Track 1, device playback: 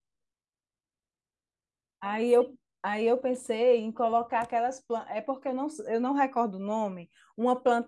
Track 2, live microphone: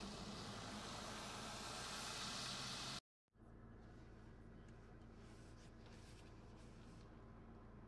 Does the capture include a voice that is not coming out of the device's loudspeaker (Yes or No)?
No